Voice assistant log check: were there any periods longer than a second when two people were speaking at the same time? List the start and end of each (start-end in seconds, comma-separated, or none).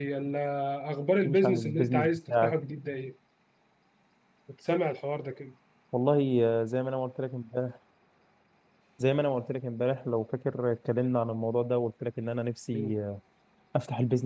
1.2-2.5